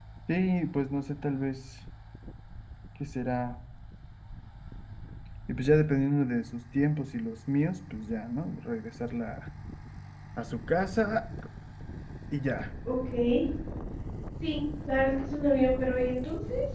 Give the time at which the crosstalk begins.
none

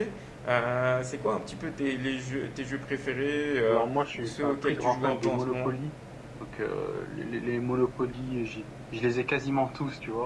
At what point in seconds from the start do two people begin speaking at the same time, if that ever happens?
3.7 s

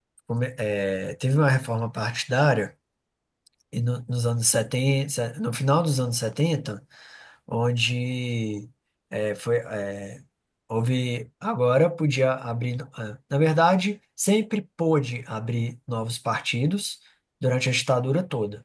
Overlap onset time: none

